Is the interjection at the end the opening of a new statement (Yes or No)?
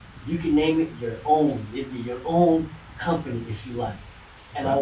No